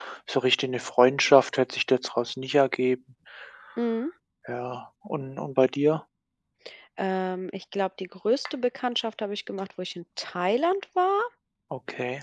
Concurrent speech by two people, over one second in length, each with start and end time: none

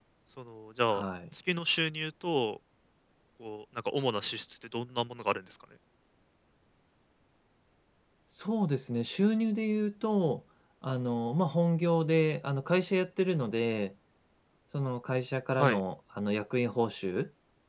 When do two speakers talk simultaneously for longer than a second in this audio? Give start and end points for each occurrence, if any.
none

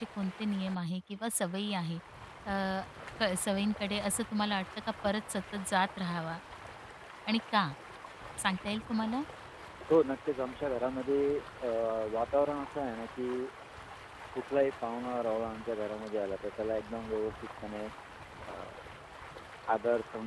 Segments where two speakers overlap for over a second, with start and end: none

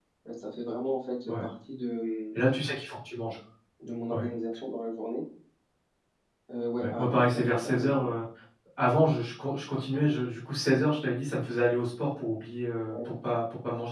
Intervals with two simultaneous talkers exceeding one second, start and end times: 6.8-8.1

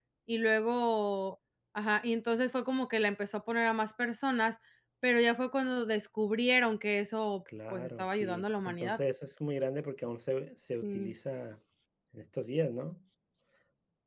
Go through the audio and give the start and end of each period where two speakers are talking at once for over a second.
7.7-9.0

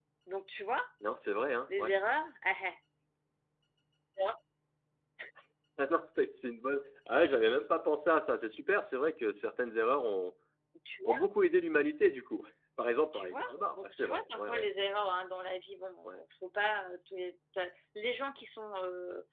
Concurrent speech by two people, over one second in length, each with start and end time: 13.1-14.7

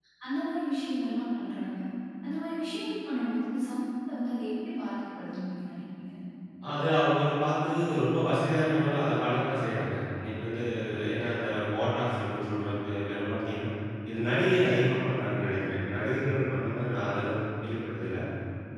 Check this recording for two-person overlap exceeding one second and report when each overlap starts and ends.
none

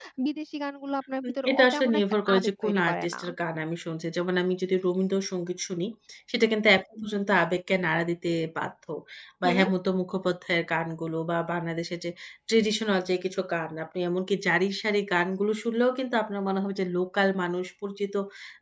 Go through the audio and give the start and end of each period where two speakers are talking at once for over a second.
1.2-3.2

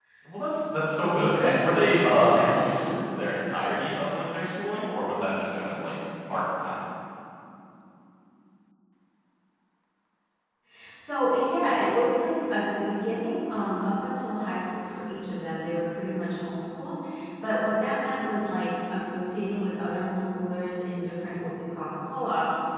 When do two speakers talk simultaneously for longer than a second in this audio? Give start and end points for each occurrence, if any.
1.0-3.0

